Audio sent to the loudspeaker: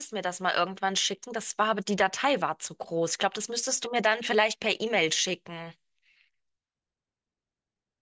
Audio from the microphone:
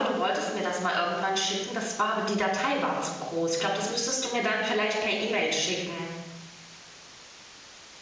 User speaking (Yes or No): No